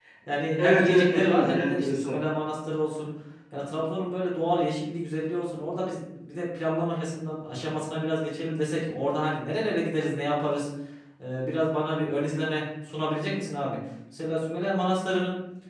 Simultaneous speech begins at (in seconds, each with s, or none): 0.6 s